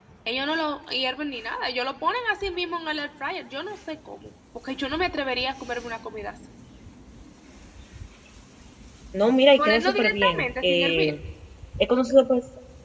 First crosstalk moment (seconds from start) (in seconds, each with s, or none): 9.6 s